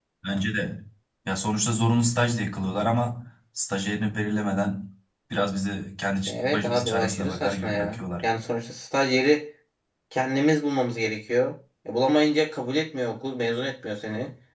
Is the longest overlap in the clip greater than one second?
Yes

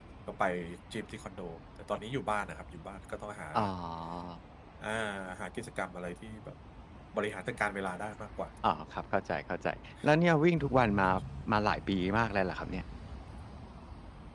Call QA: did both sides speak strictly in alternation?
Yes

